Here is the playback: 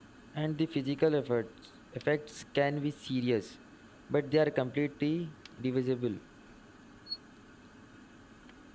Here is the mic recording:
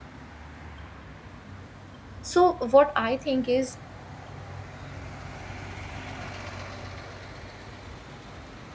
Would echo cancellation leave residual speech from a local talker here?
Yes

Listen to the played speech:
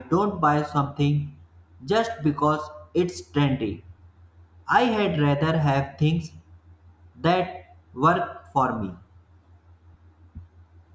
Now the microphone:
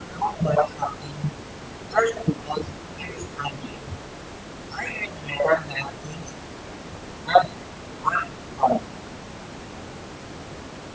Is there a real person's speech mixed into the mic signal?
No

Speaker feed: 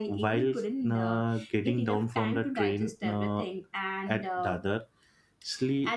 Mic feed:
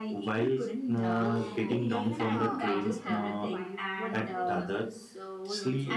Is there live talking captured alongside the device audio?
Yes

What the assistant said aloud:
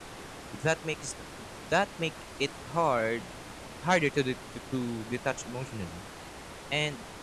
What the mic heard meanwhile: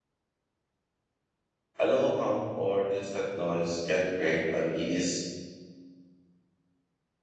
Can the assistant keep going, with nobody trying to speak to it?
No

